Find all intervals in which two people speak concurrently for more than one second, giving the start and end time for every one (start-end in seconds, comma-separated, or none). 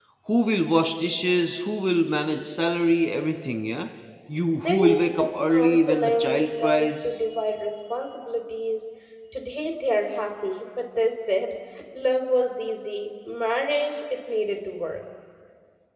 4.6-7.2